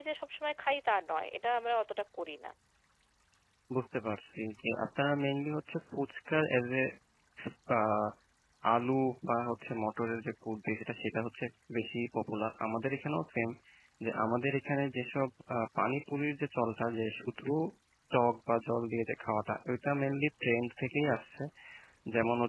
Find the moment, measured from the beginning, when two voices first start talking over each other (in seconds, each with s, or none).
none